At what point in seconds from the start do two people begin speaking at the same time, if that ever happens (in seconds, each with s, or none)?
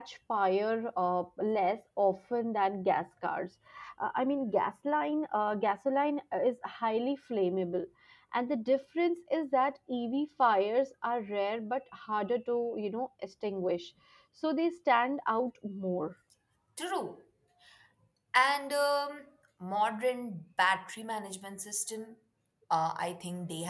none